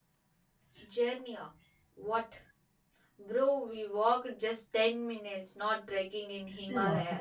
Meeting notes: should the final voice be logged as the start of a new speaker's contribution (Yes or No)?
Yes